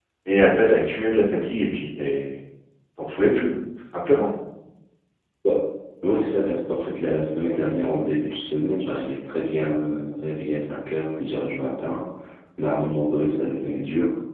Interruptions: none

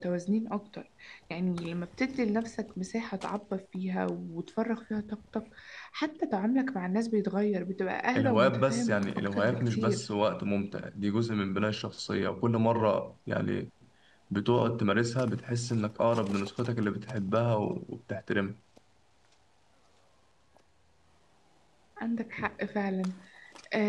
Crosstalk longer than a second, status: present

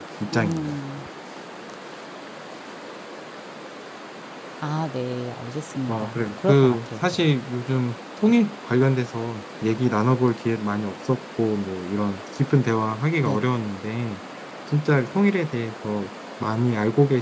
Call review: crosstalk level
present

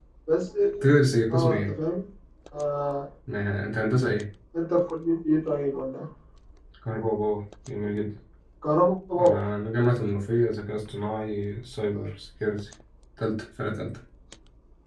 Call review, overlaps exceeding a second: none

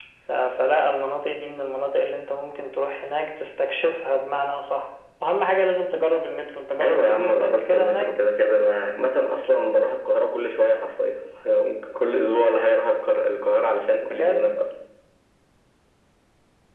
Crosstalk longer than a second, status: present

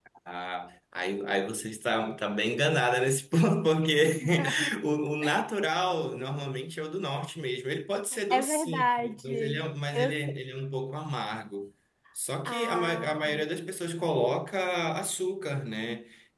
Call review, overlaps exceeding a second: present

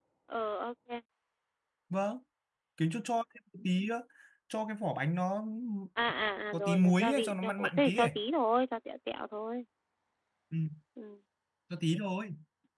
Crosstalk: present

